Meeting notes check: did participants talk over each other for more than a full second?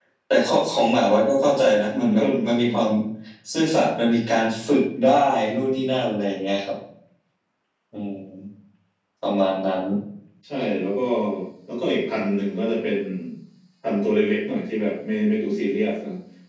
No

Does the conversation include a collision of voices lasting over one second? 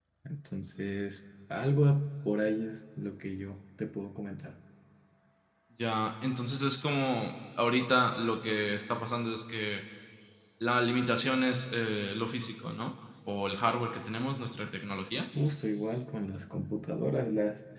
No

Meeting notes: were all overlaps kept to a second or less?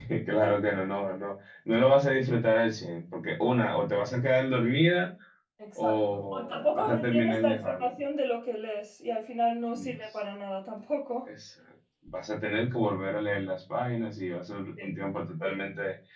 No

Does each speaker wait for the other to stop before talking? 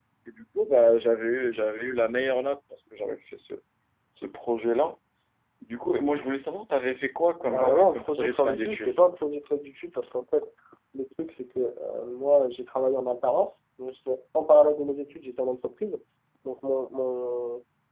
No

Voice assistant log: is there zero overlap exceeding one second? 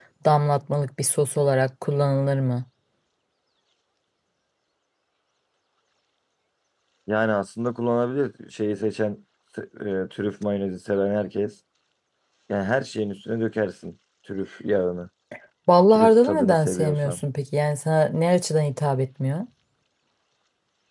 No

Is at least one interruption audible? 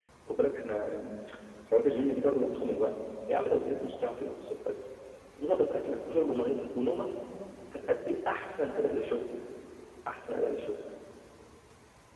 No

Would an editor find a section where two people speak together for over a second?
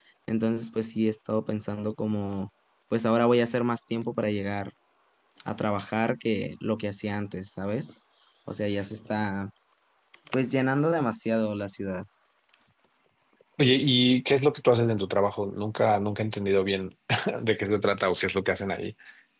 No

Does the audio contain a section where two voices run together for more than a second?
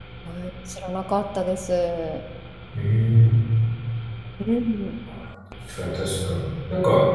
No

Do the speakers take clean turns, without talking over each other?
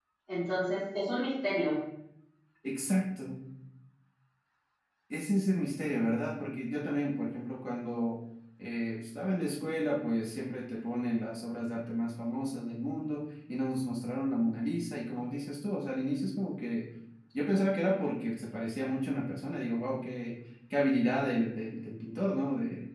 Yes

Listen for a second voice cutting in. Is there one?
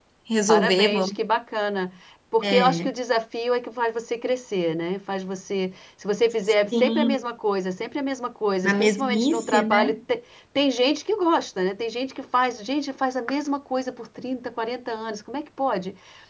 Yes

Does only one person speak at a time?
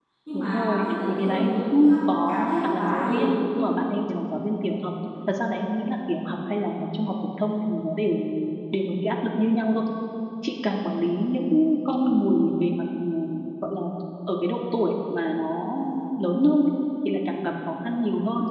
No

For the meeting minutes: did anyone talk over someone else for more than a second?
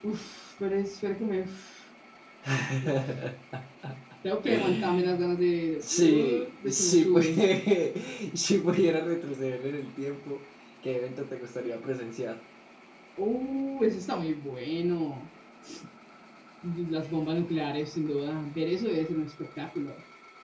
Yes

